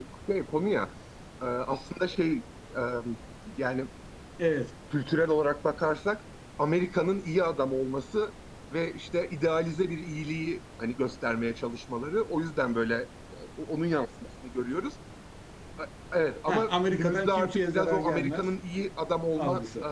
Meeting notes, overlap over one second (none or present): present